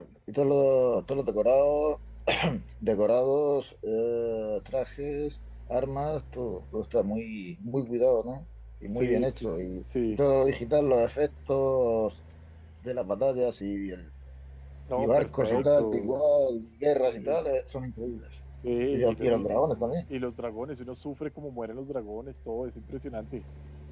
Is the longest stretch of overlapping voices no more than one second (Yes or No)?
No